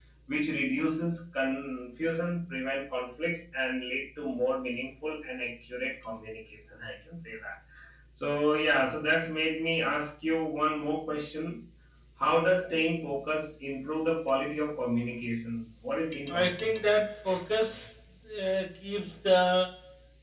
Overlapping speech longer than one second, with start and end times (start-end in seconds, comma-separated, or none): none